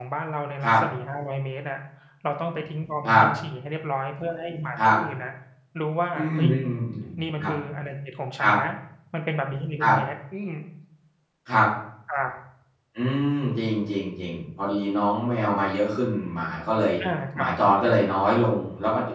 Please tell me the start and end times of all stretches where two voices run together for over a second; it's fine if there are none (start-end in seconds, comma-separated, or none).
none